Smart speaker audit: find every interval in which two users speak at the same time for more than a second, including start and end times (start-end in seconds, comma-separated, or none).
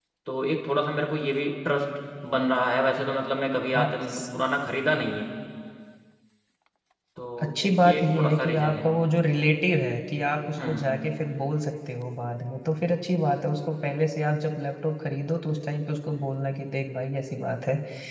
7.4-8.9